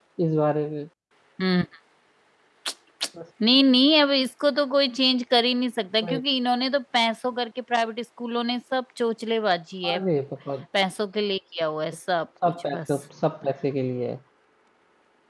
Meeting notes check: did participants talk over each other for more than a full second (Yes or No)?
No